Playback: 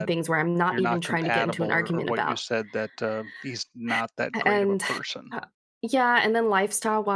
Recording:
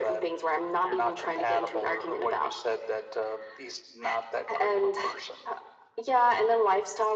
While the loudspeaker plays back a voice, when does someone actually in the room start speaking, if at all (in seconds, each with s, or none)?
none